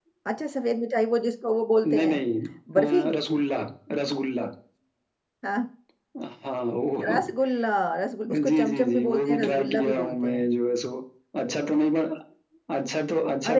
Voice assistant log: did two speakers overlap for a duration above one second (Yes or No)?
Yes